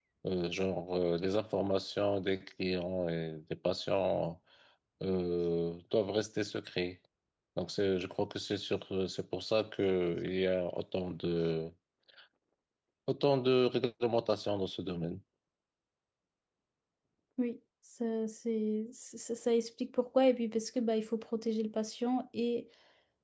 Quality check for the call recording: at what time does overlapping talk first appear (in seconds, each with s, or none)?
none